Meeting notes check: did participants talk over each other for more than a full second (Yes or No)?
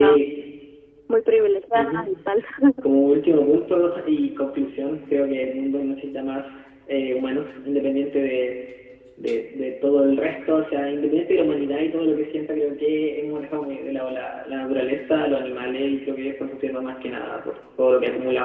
No